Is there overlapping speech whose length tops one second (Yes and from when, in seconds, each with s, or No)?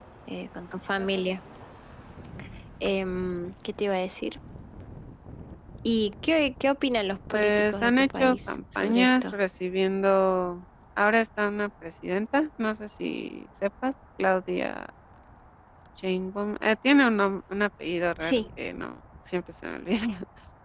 Yes, from 7.3 s